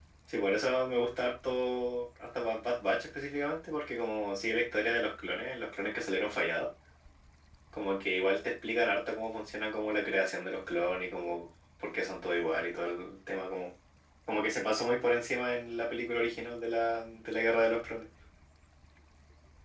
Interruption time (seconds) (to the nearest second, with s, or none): none